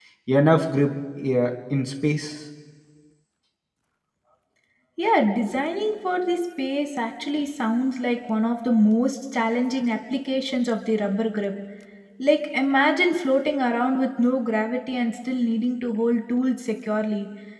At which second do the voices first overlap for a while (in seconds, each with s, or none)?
none